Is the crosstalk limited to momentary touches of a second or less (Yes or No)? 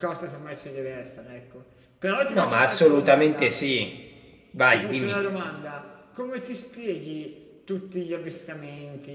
No